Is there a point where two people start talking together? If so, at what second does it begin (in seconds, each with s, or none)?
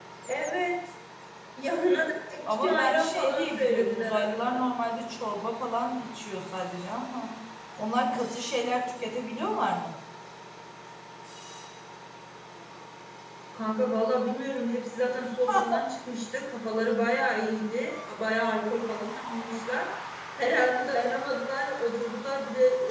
2.6 s